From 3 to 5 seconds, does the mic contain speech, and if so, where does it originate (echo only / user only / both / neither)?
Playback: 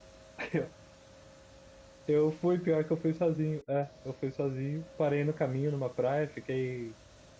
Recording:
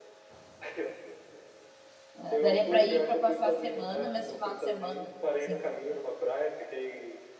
both